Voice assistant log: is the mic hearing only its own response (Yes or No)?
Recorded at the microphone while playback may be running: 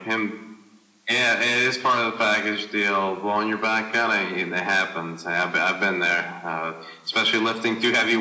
Yes